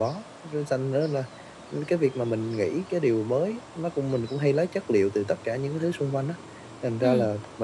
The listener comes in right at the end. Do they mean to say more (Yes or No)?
No